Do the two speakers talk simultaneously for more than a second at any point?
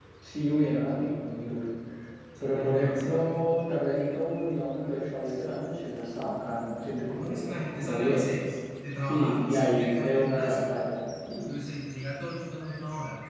Yes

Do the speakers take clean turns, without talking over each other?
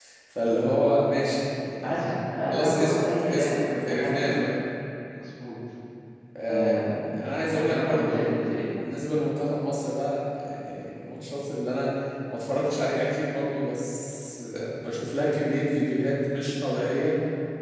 No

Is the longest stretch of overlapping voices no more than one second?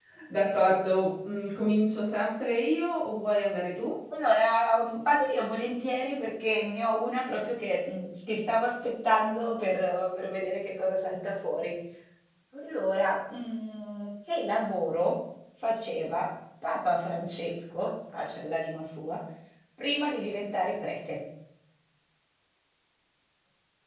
Yes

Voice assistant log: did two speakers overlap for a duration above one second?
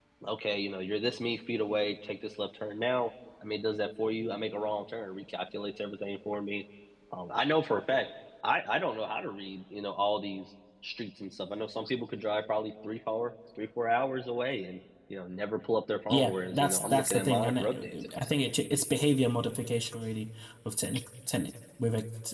Yes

